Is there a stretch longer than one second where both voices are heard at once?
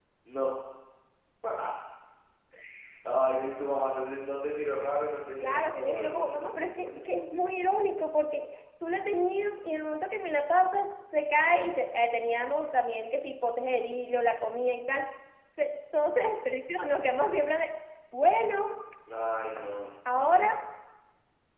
Yes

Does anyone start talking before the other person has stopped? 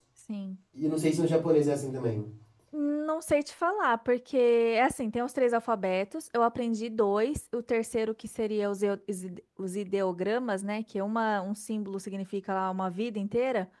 No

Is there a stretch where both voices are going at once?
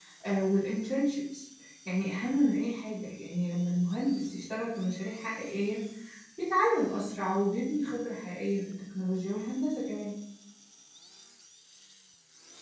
No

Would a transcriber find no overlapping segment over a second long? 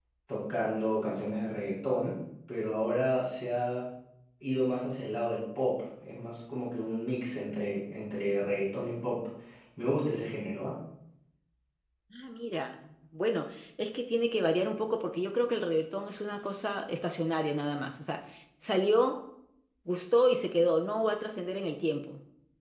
Yes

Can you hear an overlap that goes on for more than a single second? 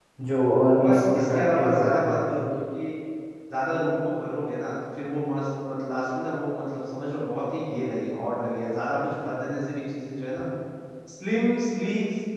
Yes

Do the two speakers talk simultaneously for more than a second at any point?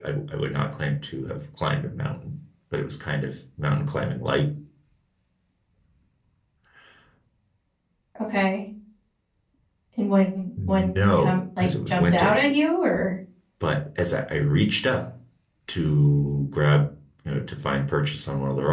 Yes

